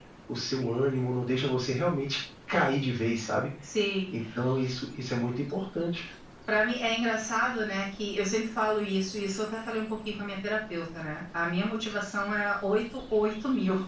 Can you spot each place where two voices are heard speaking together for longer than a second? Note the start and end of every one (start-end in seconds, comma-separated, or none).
none